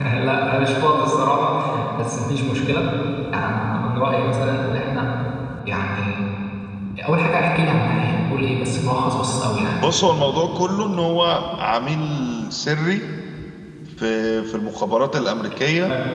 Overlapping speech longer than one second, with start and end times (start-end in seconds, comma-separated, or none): none